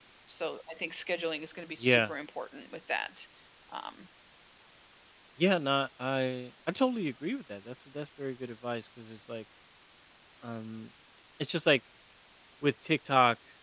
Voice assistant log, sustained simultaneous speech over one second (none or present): none